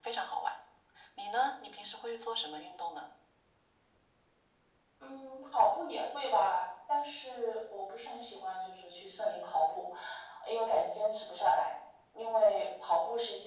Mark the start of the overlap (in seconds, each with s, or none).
none